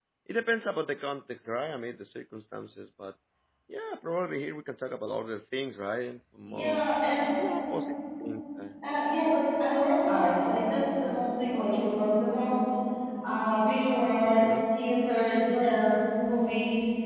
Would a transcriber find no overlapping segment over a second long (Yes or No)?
Yes